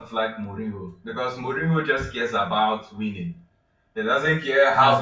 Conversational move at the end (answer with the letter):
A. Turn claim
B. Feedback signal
B